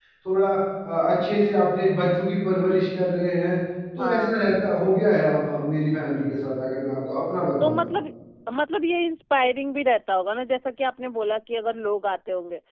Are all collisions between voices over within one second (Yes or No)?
Yes